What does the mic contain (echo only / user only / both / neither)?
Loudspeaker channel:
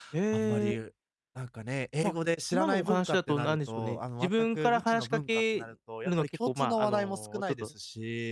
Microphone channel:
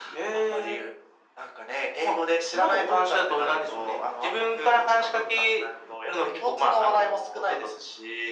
echo only